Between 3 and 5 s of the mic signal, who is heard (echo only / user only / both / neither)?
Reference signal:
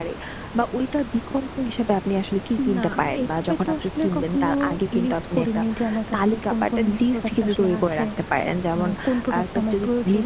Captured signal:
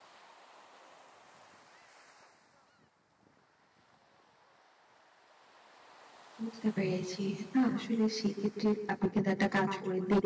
neither